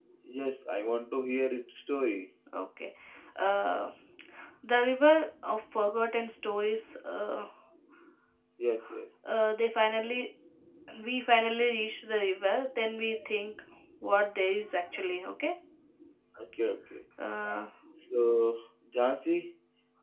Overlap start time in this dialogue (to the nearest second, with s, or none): none